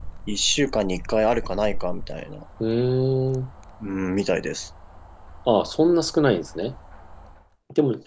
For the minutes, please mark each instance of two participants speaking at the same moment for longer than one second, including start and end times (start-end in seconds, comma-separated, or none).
none